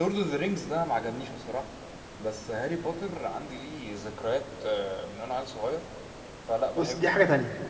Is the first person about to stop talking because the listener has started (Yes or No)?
Yes